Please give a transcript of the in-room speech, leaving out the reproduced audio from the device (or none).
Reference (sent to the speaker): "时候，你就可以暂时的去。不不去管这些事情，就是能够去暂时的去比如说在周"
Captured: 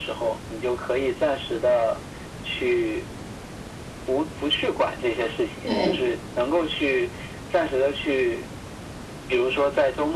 对，